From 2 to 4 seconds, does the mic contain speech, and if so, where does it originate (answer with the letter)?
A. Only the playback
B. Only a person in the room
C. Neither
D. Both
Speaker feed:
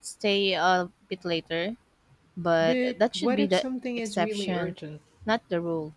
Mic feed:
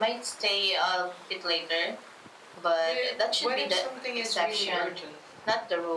A